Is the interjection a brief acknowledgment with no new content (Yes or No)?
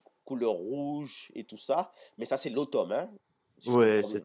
No